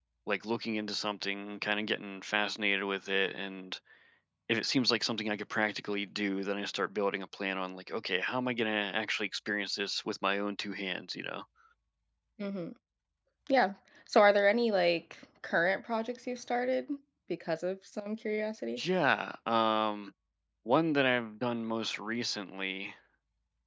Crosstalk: none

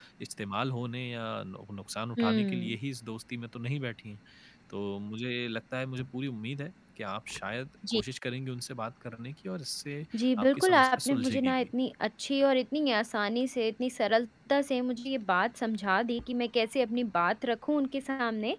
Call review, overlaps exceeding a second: present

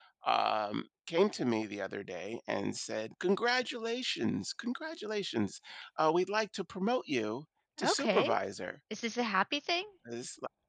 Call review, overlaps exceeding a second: none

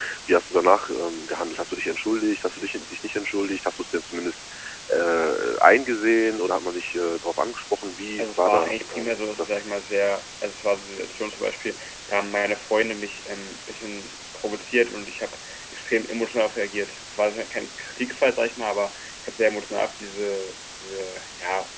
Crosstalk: present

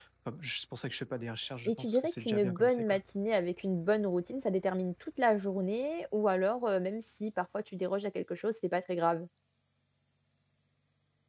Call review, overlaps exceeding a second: present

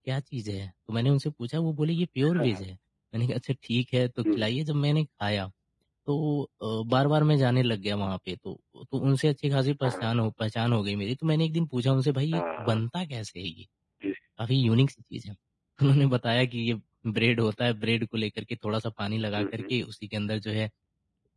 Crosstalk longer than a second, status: none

